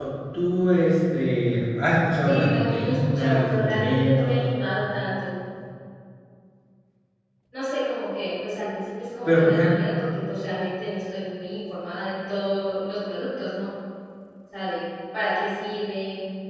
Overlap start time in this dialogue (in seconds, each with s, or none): 2.2 s